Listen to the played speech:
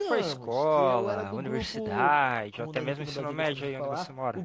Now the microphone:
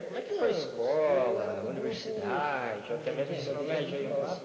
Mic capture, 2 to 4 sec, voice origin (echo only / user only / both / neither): both